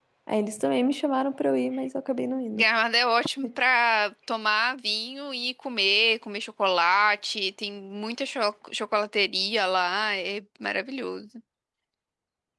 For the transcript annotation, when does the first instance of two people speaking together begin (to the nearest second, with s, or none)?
none